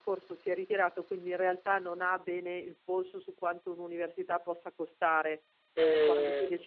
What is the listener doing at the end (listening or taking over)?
listening